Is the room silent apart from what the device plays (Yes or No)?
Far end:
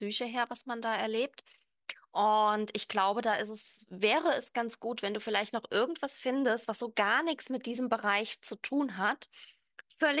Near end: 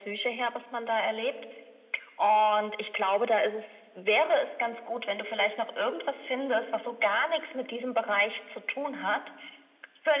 Yes